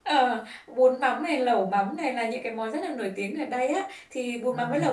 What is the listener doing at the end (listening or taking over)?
listening